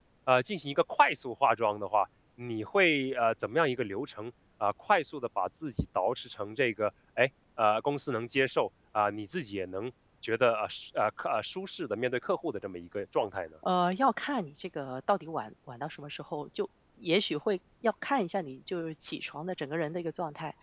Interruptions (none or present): none